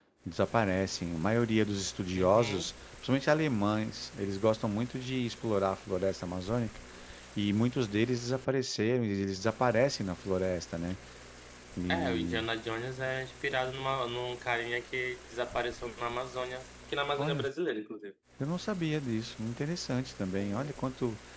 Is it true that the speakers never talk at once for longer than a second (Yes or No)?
Yes